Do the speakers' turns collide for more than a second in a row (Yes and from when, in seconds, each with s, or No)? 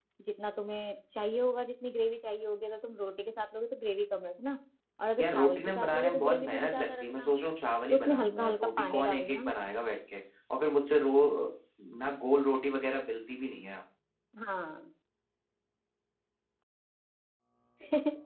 Yes, from 5.2 s